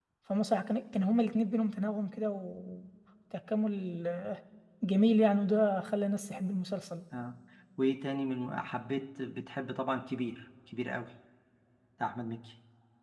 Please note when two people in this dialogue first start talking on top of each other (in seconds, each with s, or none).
none